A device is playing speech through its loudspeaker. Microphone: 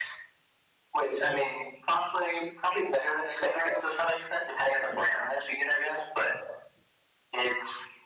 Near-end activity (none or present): none